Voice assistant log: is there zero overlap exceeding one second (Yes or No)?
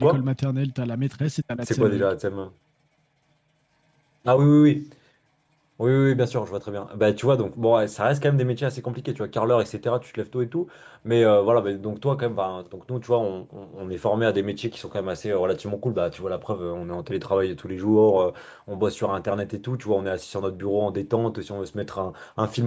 Yes